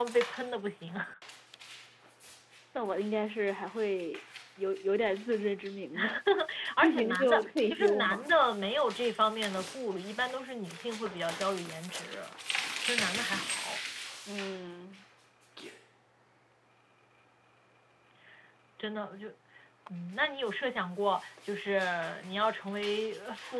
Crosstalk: present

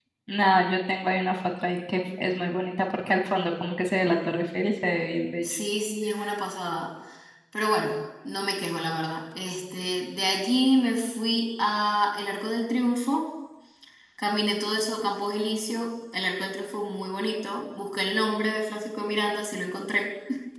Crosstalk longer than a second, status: none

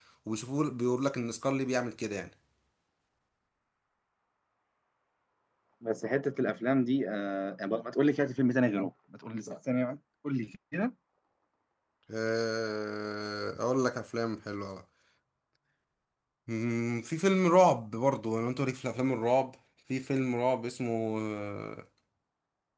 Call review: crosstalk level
none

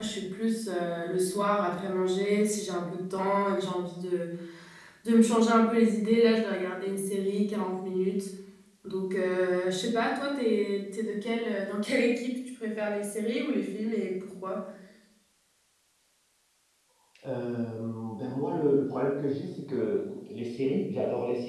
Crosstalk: none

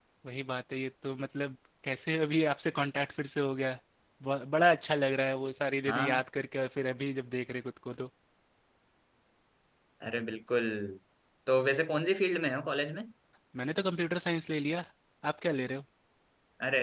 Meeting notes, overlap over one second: none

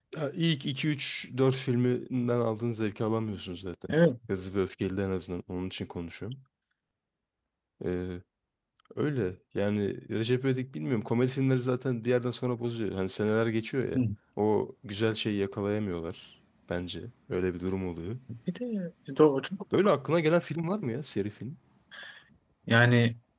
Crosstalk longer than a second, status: none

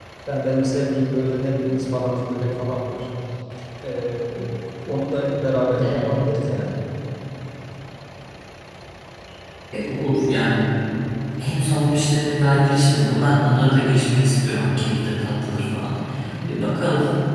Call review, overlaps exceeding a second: none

